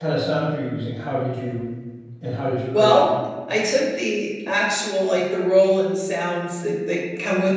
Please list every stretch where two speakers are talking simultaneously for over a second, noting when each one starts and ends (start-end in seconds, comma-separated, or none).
none